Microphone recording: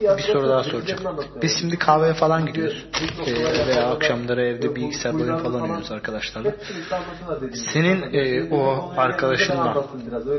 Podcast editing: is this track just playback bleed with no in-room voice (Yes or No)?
No